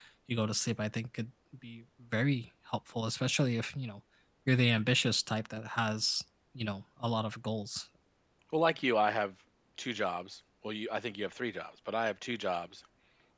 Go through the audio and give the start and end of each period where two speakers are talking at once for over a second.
none

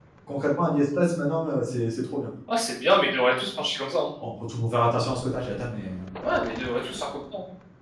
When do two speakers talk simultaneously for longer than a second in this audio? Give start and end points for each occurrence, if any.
none

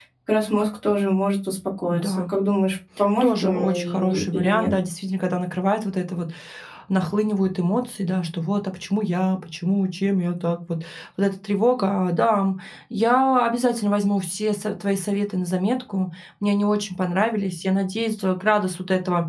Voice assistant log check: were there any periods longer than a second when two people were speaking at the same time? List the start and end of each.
3.2-4.8

